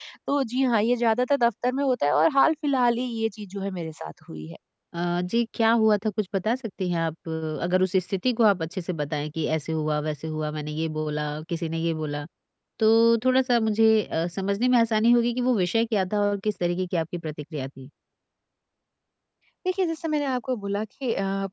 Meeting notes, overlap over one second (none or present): none